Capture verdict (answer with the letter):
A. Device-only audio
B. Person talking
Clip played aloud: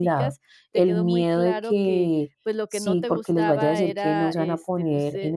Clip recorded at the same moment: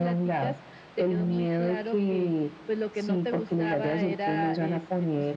A